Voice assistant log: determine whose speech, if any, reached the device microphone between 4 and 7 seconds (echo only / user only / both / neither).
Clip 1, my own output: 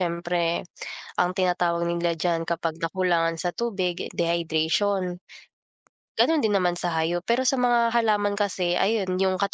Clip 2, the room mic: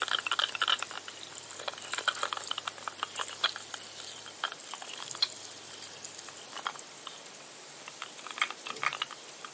neither